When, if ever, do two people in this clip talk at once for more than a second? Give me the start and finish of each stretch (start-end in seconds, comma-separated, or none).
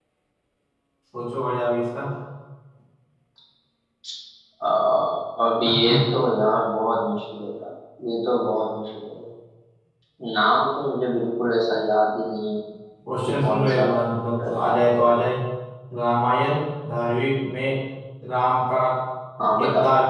13.2-14.8